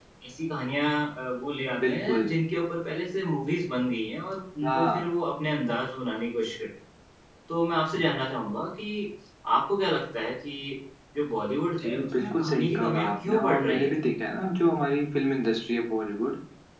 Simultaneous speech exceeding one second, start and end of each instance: 11.8-13.9

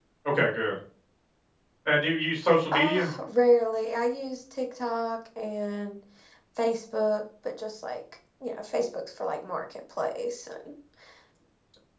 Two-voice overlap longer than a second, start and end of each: none

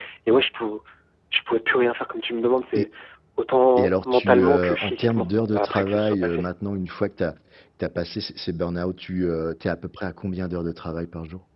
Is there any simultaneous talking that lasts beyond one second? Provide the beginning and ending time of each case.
3.8-6.4

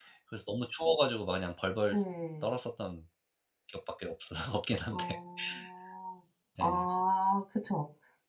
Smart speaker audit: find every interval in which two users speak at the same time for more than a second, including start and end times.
none

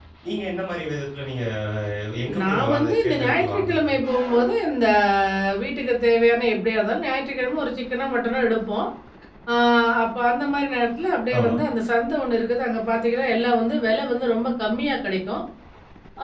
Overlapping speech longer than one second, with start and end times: 2.4-3.9

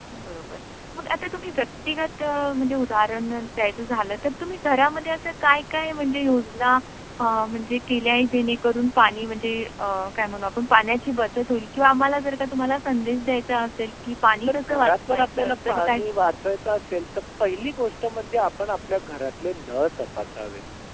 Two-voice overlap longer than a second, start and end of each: 14.5-16.3

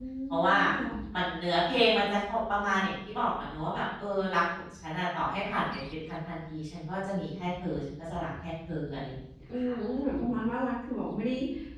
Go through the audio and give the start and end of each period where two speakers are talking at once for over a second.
none

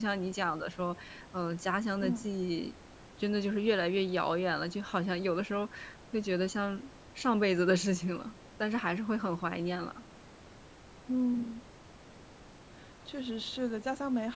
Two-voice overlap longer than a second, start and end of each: none

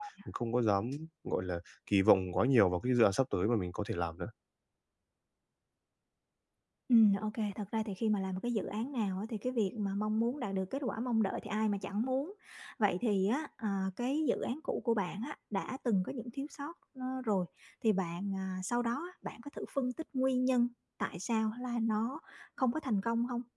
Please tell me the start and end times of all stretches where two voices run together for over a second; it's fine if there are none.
none

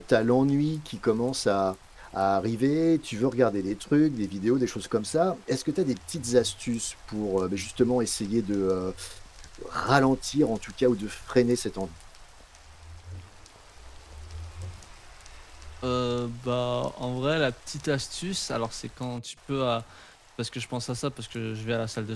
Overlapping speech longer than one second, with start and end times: none

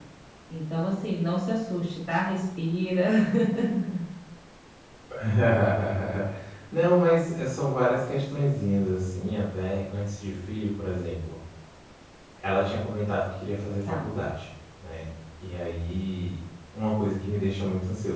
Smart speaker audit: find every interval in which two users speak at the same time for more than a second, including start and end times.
none

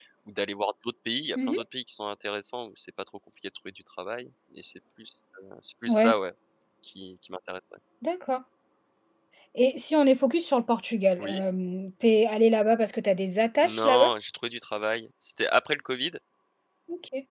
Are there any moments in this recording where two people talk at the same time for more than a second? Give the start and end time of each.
none

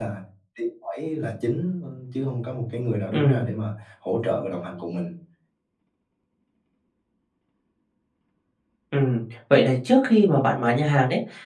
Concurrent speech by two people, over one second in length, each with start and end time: none

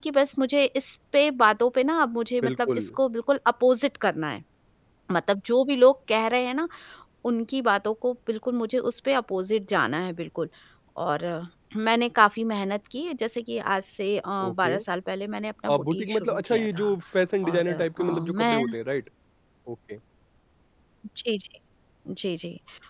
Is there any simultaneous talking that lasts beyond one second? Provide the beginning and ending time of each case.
15.7-16.9, 17.4-18.7

